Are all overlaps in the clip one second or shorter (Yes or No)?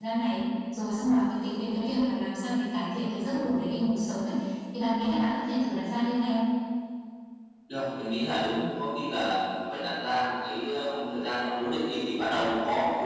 Yes